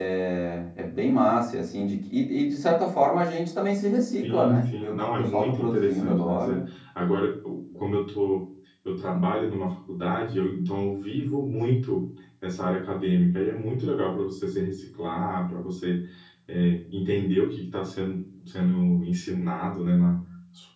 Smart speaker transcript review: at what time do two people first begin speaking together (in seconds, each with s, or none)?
4.2 s